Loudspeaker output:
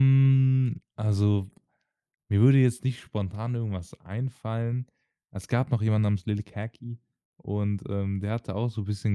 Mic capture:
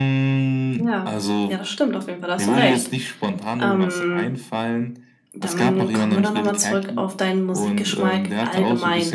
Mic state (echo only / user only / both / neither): both